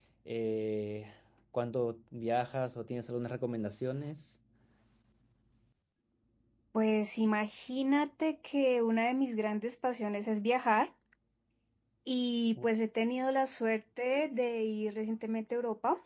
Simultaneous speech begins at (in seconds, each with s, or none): none